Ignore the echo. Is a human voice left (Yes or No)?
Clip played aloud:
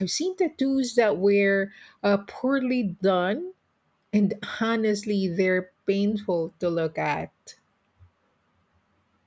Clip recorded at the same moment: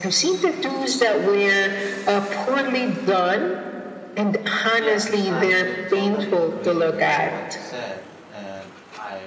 Yes